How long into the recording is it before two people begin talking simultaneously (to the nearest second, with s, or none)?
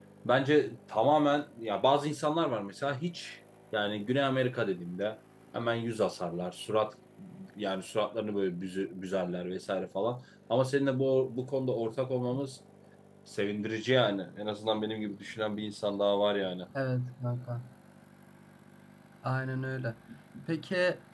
none